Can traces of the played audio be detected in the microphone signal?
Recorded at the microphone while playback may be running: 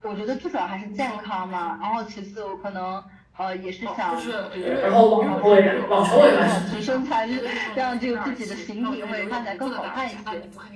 Yes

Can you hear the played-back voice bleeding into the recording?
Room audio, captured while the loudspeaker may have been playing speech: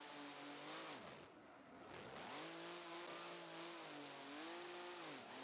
No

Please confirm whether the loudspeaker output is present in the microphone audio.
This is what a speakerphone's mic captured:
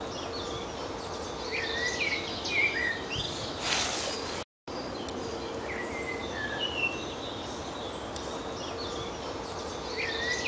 No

